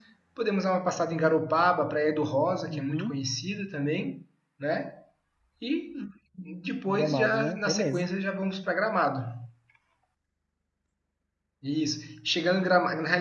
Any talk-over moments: Yes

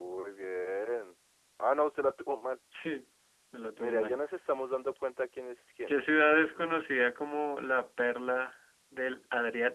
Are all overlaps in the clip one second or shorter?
Yes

